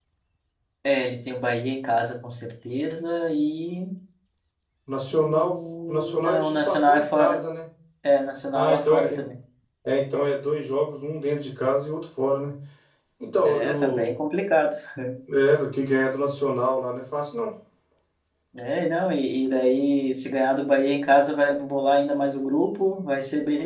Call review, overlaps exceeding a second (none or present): present